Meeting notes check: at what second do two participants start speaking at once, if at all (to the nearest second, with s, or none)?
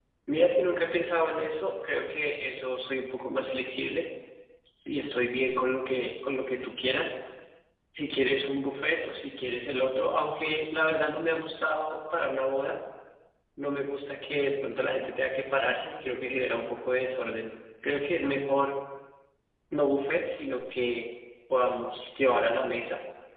none